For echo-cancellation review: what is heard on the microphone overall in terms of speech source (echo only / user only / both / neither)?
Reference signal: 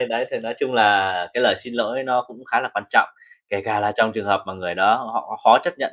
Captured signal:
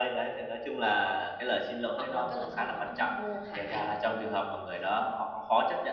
both